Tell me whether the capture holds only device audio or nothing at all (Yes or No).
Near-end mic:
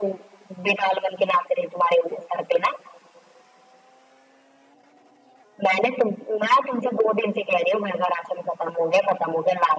Yes